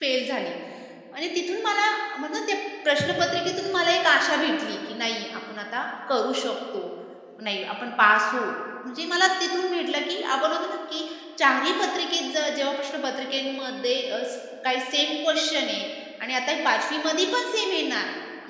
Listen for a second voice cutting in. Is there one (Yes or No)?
No